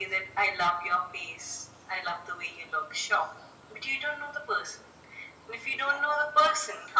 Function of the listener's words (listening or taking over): listening